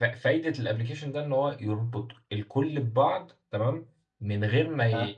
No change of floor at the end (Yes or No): Yes